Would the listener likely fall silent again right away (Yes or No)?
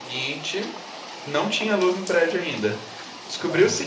Yes